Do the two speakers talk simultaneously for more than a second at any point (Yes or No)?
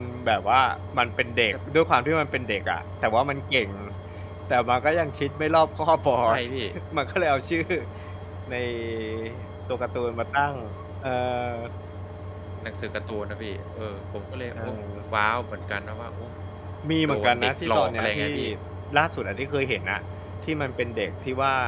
Yes